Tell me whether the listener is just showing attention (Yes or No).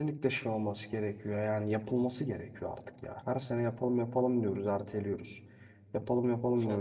Yes